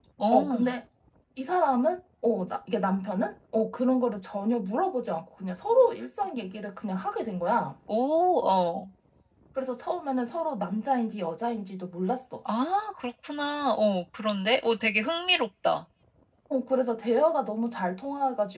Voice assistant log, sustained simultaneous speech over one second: none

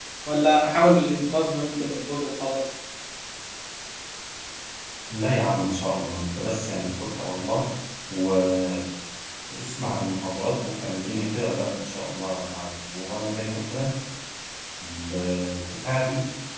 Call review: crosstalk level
none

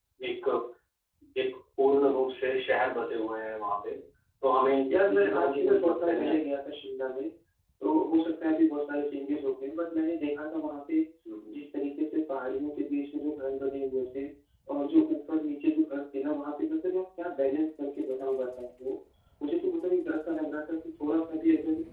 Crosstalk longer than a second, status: present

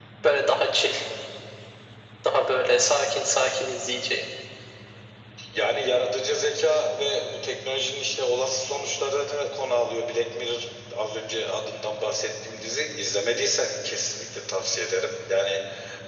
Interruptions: none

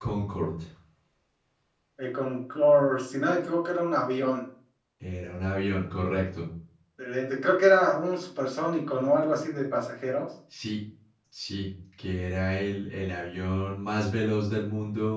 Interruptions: none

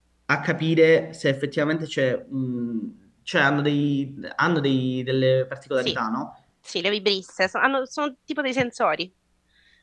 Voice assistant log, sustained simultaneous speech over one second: none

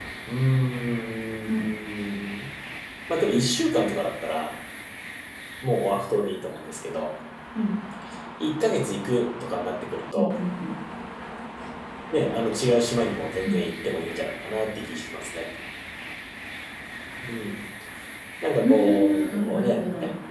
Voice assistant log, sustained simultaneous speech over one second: present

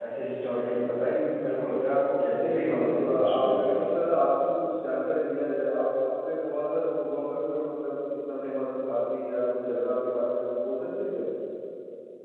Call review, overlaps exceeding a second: present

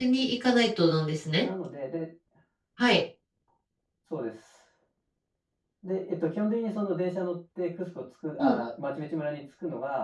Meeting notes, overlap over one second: none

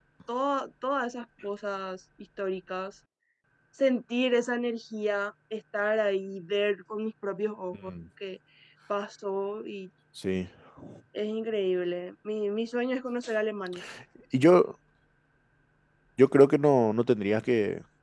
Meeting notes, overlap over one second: none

